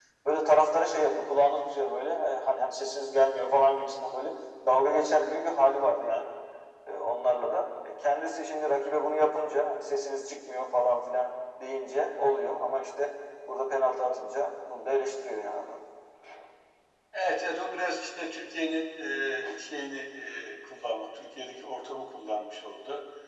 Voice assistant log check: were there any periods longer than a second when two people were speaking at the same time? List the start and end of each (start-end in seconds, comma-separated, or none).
none